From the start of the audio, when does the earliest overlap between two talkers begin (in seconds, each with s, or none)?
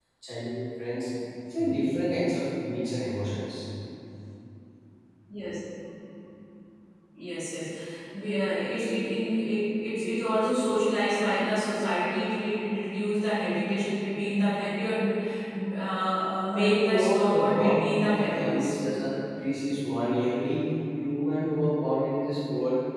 16.5 s